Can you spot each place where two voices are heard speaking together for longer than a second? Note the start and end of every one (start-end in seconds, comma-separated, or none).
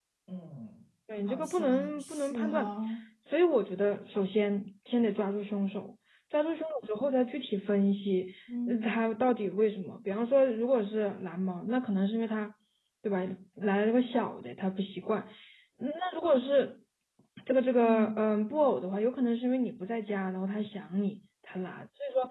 1.3-2.7